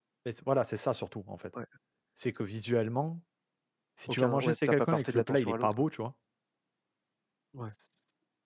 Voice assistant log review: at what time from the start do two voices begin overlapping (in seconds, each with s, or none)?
4.1 s